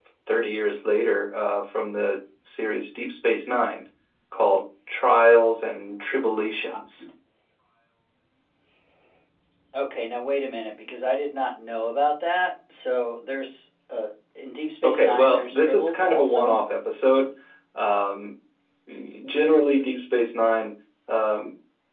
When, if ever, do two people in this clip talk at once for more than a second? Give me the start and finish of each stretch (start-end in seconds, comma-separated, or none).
14.8-16.6